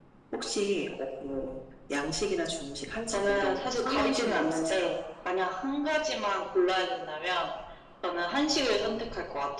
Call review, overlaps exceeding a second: present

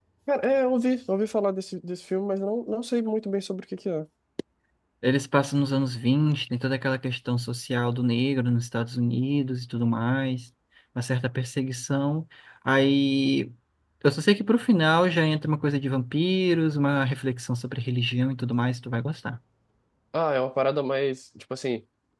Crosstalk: none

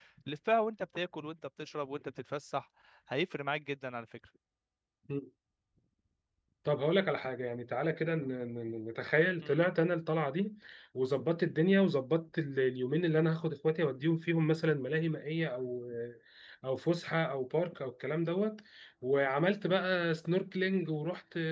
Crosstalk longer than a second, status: none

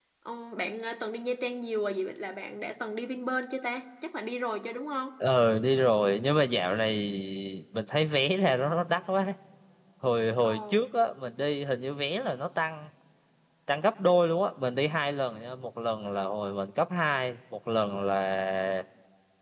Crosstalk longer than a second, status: none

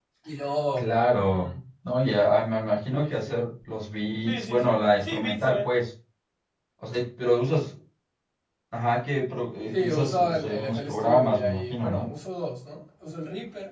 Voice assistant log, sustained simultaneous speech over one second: present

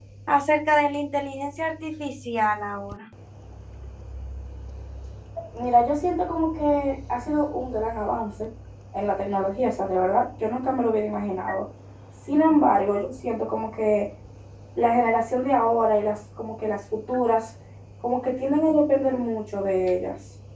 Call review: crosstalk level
none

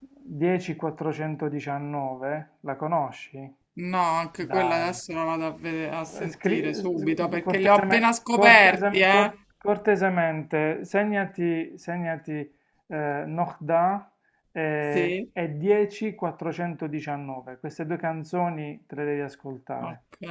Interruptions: present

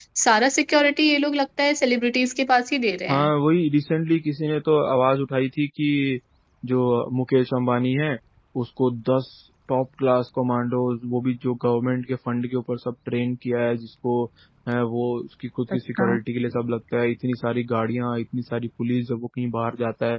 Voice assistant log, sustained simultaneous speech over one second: none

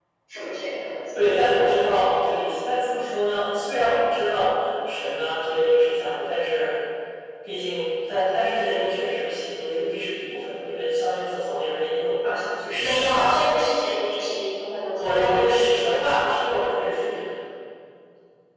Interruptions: present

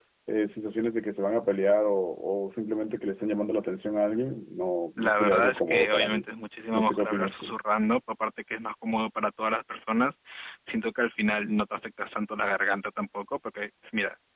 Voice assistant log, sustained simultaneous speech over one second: present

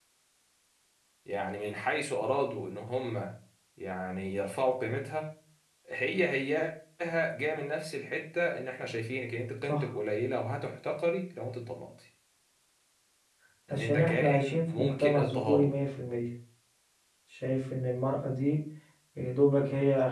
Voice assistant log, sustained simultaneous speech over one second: present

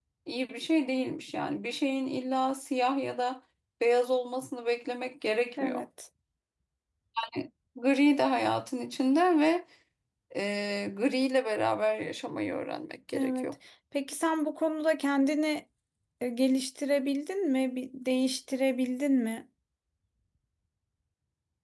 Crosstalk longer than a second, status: none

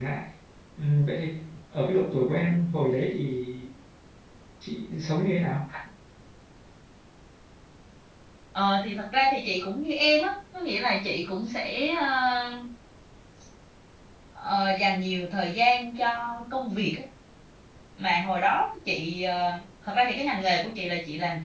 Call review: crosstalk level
none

